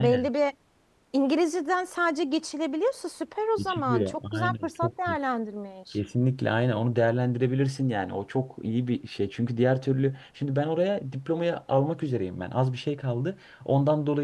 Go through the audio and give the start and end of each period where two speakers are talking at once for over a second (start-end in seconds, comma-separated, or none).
3.6-5.2